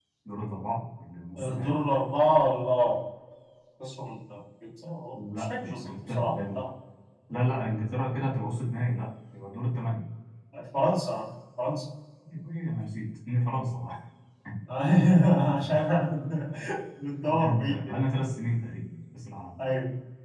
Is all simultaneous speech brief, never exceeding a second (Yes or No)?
No